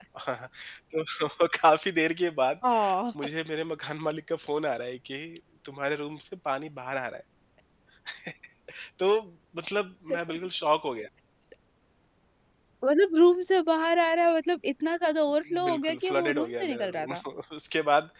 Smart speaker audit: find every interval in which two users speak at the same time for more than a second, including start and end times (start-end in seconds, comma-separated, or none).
15.7-17.1